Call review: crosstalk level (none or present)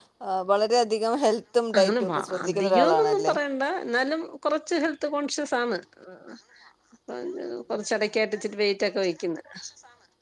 present